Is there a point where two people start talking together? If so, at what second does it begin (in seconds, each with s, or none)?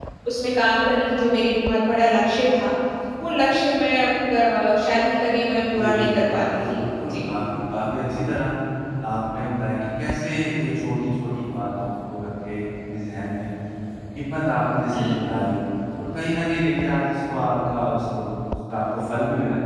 5.7 s